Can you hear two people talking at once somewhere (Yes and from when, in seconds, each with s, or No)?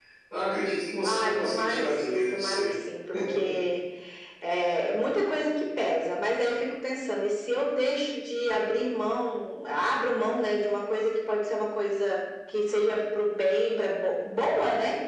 Yes, from 1.0 s